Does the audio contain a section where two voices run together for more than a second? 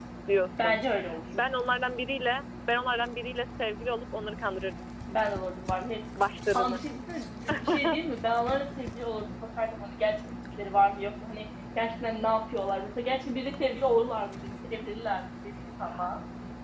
No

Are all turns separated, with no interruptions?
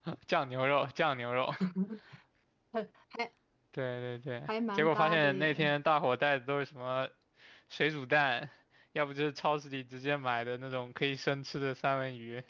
No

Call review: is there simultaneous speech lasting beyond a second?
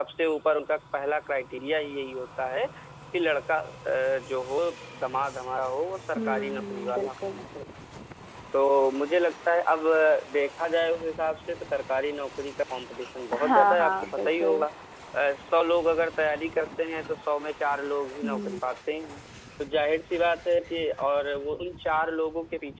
Yes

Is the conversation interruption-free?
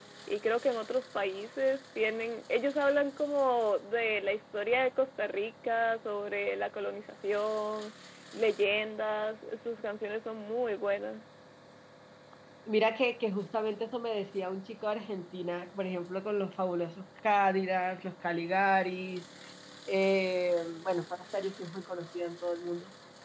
Yes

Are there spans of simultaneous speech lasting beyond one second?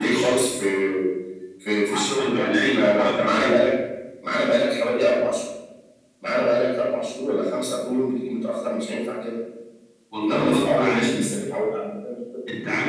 Yes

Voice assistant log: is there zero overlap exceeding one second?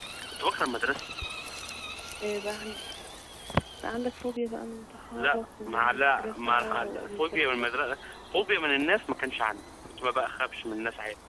No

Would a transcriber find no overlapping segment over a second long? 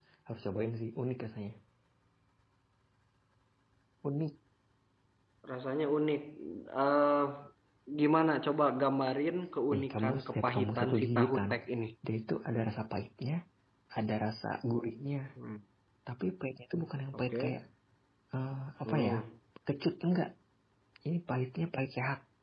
No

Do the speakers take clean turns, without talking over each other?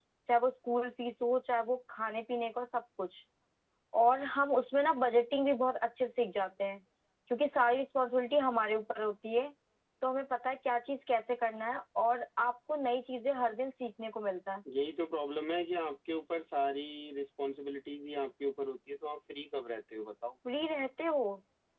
Yes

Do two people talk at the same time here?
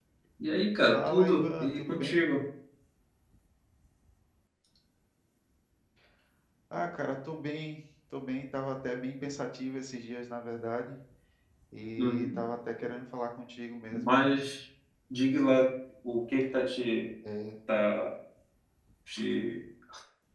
Yes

